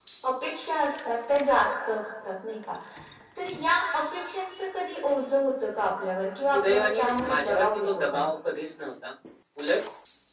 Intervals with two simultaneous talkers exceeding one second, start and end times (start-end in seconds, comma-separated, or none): 6.5-8.2